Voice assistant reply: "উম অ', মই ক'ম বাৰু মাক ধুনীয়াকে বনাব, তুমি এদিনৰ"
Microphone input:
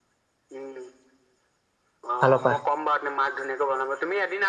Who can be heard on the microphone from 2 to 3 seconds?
both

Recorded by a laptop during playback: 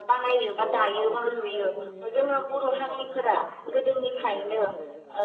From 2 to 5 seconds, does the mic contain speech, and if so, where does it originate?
both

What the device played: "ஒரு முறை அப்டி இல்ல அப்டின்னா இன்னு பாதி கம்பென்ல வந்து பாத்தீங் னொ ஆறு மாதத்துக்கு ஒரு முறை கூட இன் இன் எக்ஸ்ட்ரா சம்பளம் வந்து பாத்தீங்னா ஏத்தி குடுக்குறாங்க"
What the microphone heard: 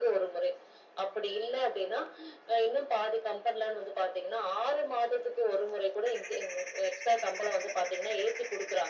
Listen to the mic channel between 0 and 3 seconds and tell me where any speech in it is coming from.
echo only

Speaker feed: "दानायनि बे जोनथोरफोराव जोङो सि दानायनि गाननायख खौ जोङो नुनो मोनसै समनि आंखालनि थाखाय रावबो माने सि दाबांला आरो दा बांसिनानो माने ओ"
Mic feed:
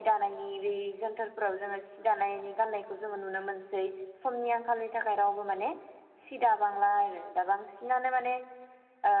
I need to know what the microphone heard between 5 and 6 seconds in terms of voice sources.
echo only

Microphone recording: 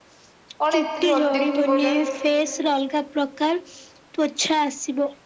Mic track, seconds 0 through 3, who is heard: both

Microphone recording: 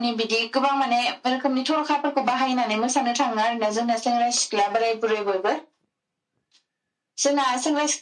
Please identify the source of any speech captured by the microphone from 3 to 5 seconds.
echo only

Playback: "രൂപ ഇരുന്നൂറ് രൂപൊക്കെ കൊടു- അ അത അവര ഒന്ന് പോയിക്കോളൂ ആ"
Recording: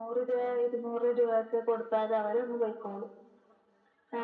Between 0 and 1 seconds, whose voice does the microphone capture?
echo only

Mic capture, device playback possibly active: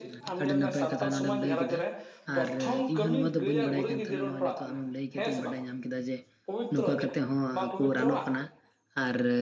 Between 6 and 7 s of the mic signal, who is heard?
both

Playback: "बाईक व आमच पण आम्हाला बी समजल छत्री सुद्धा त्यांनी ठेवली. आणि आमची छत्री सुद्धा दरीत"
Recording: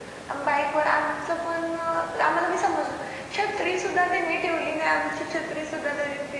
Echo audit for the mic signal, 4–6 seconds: echo only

